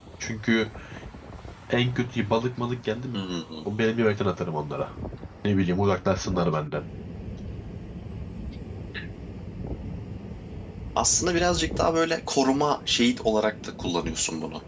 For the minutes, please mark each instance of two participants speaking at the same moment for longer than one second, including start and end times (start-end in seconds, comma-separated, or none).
none